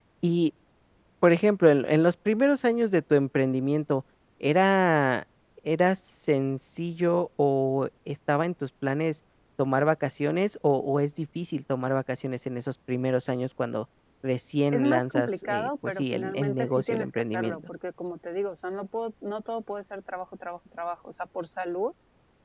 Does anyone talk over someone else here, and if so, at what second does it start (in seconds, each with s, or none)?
14.7 s